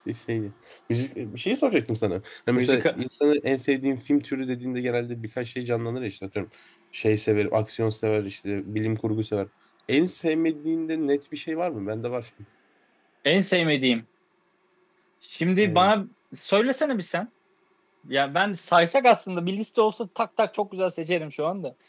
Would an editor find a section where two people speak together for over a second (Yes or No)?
No